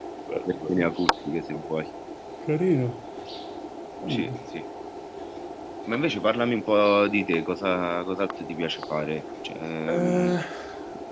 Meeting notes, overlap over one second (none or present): none